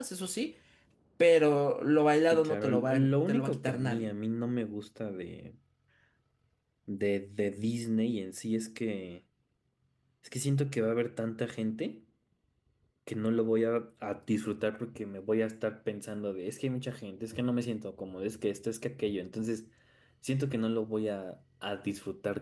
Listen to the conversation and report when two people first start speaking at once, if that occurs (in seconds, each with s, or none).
2.3 s